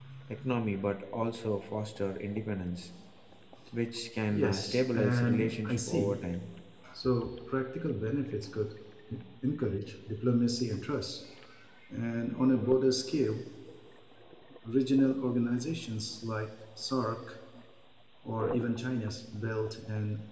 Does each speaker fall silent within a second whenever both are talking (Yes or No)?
No